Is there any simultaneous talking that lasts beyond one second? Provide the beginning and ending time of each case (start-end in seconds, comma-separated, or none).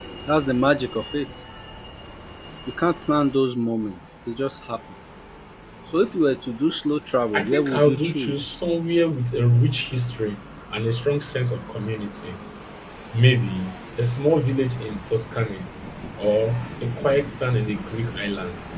7.3-8.6